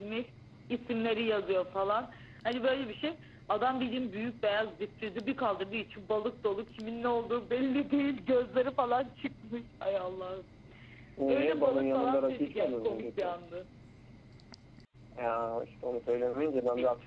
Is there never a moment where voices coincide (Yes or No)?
No